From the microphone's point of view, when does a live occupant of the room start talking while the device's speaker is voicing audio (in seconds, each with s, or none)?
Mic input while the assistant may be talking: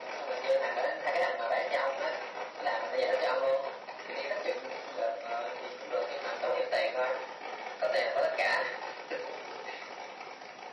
none